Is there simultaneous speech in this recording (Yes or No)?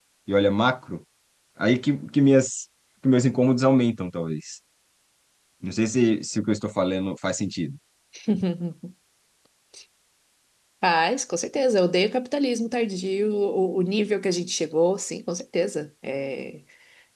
No